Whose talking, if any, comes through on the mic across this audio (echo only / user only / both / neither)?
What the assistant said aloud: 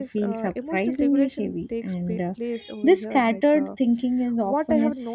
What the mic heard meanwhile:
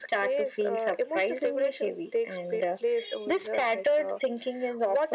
echo only